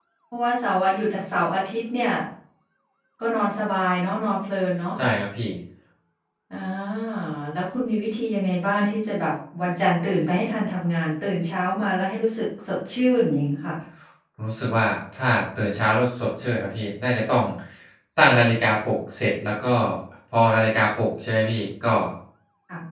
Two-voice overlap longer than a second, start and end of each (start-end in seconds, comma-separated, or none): none